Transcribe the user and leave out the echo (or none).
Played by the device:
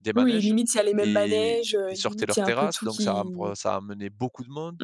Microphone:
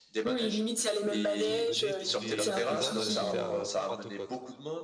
qui venait tous les tous les ans, elle, c'était à pour Pentecôte.